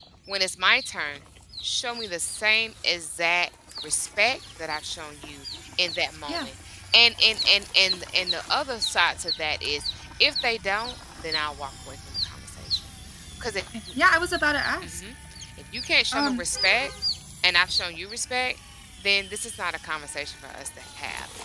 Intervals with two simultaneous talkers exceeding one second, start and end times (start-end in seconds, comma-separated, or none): none